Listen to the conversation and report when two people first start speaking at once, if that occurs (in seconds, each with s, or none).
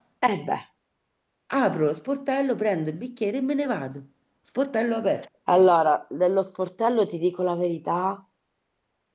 none